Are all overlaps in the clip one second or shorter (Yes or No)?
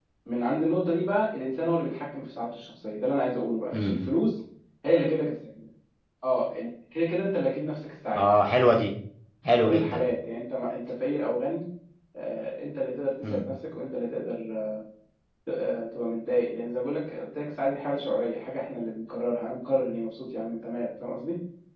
Yes